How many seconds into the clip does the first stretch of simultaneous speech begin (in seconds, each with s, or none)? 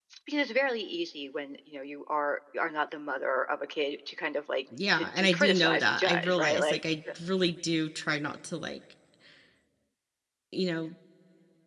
4.7 s